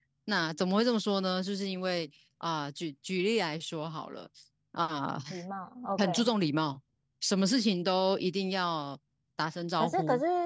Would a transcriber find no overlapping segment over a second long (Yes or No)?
Yes